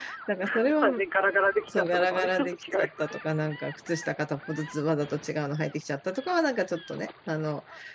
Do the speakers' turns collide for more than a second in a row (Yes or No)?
Yes